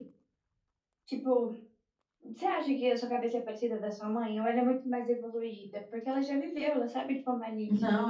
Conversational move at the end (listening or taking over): taking over